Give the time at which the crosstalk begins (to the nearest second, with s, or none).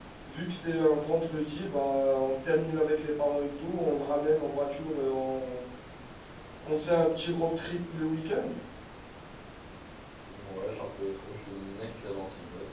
none